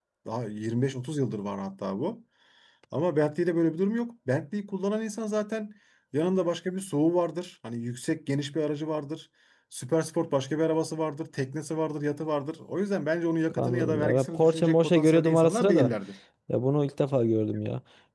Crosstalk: present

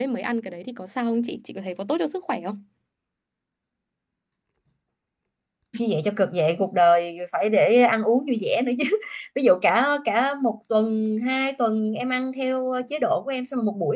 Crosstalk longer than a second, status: none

